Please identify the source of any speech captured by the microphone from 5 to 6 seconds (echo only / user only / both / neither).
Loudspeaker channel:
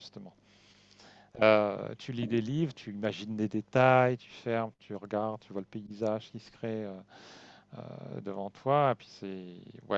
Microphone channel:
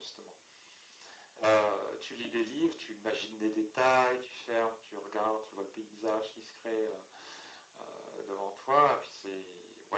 echo only